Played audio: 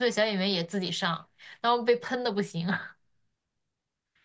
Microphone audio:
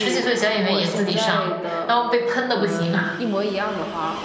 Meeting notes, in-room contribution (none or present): present